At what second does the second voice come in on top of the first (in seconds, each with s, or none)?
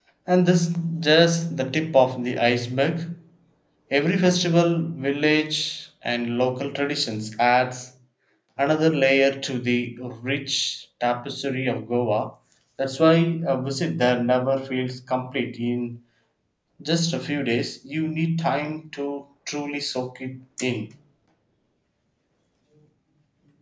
none